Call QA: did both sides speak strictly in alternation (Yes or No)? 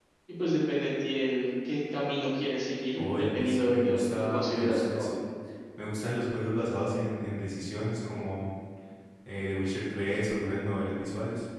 No